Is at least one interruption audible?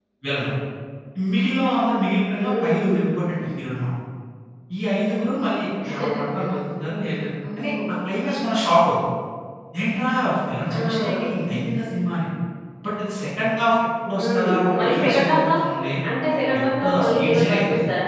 Yes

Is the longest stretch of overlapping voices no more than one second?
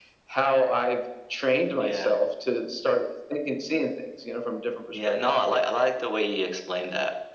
Yes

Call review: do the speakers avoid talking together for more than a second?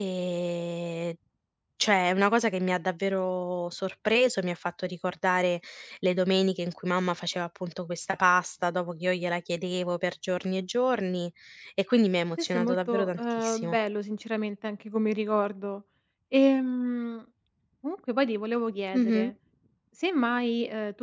No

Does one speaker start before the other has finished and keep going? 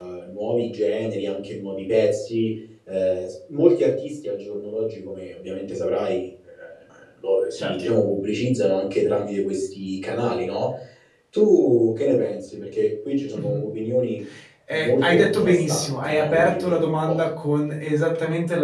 Yes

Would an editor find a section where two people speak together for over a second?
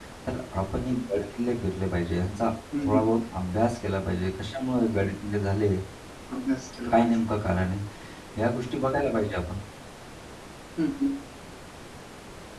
No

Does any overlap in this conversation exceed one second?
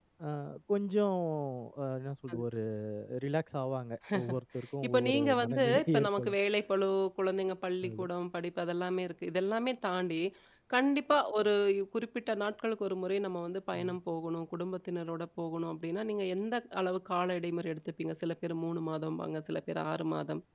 Yes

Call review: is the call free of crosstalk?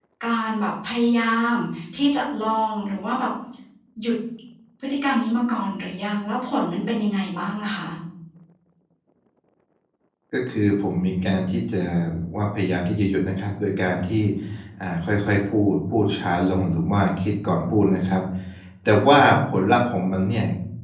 Yes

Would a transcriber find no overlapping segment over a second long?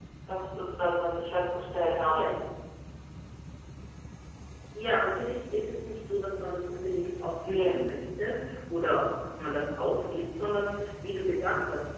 Yes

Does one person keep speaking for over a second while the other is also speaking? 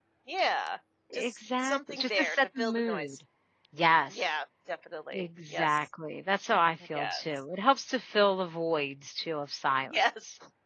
Yes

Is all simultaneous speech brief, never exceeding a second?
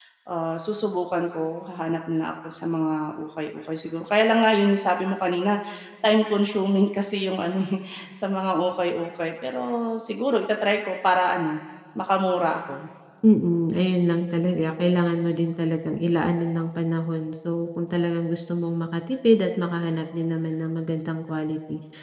Yes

